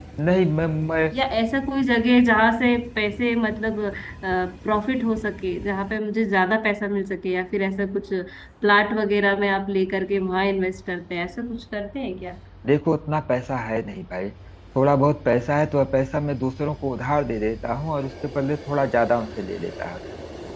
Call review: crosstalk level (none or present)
none